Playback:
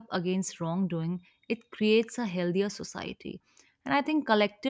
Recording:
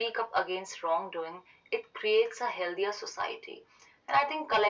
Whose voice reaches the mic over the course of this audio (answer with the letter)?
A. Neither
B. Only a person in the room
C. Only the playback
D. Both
C